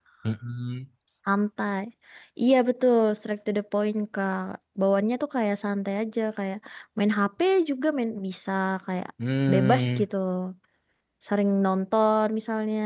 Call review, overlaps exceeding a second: none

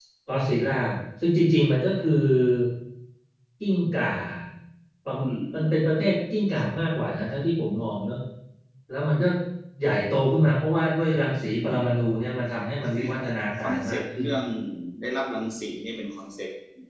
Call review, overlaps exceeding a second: present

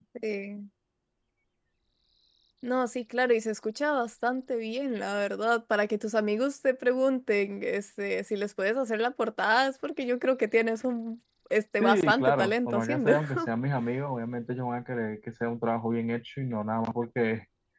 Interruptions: present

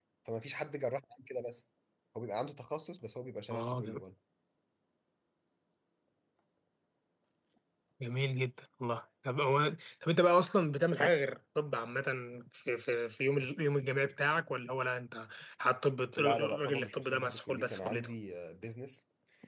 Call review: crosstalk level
present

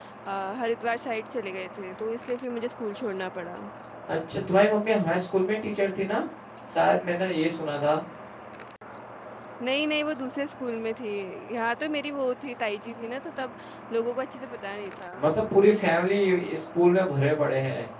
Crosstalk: none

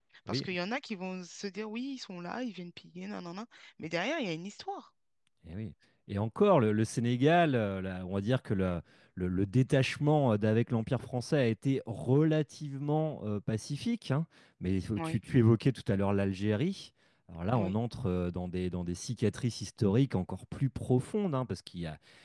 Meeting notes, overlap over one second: none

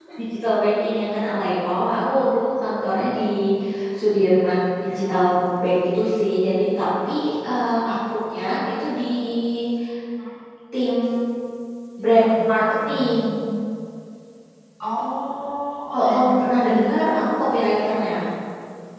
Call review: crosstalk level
present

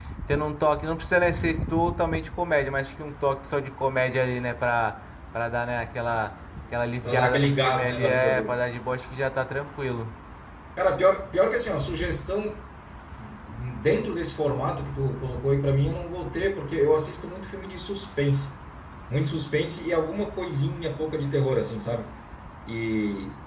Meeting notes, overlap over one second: present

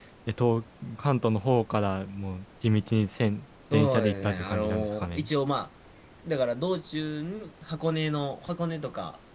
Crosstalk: present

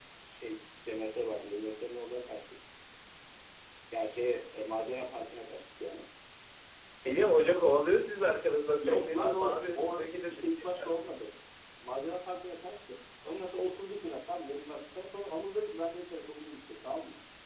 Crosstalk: present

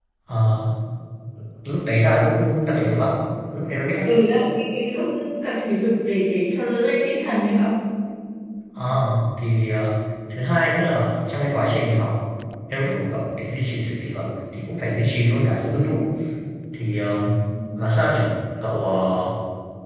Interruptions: none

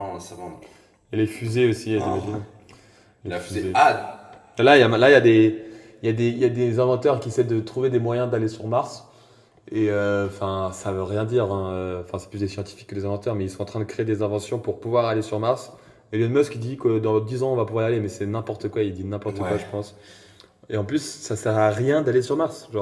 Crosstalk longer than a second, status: none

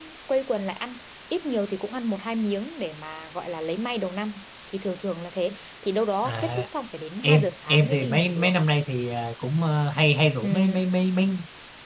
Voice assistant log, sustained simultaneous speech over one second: present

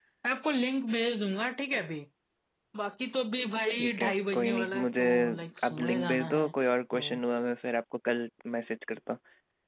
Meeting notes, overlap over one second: present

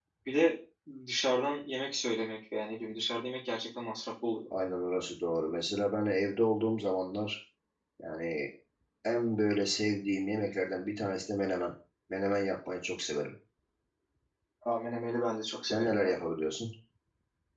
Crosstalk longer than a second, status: none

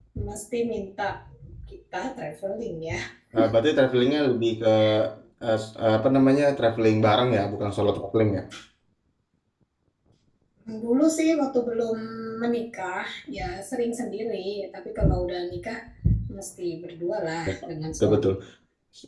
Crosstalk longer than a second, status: none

